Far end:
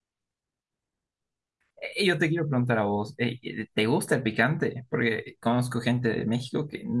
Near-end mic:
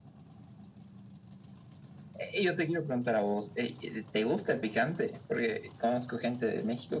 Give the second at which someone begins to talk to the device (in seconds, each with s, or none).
none